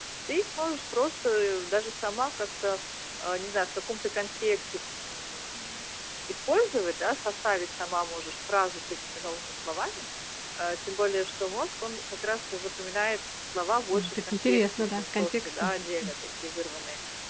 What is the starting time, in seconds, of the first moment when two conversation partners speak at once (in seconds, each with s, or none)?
13.9 s